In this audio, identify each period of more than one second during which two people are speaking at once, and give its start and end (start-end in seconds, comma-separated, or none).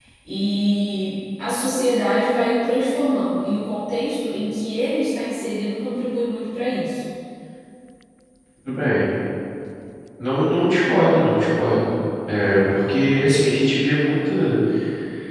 none